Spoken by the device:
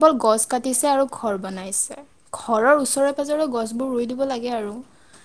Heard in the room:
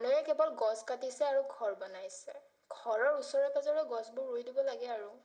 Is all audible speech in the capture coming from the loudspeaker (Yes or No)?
Yes